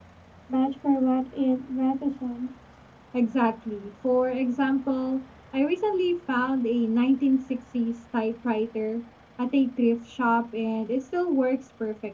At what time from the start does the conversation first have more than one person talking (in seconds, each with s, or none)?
none